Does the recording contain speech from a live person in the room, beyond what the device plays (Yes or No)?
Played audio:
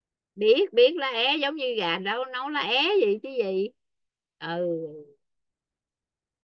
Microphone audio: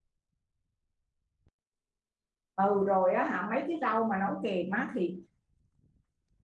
Yes